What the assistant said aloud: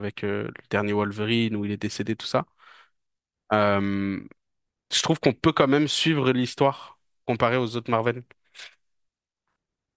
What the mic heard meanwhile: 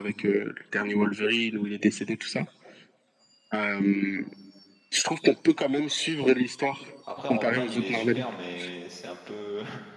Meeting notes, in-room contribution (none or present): present